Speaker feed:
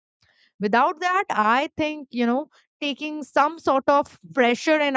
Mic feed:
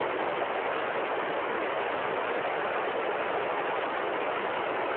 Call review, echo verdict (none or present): none